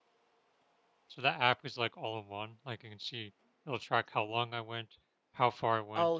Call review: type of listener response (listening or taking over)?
taking over